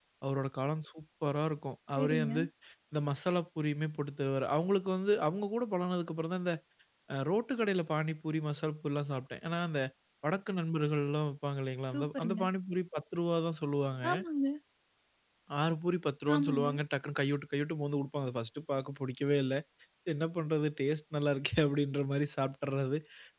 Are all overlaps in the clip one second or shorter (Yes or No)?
Yes